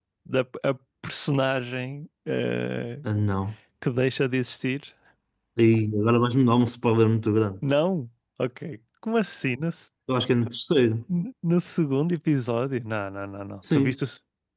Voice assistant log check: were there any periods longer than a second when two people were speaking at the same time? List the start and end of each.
none

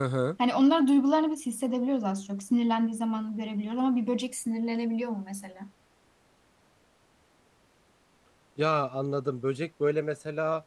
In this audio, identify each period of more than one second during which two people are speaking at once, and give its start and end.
none

